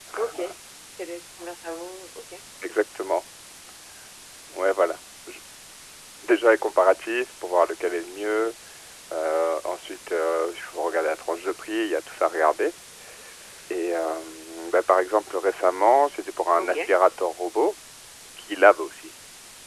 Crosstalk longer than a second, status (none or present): none